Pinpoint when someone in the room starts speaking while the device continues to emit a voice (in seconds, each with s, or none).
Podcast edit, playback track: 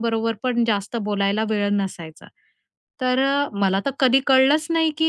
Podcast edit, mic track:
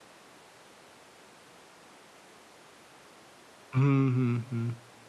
3.7 s